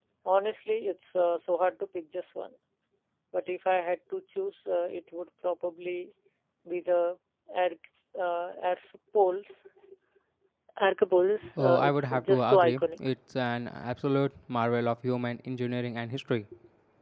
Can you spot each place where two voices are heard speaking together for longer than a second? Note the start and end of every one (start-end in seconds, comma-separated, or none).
11.6-12.8